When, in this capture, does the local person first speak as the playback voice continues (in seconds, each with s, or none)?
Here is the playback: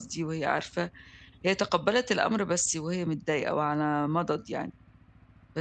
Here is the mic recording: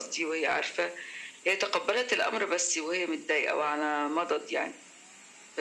none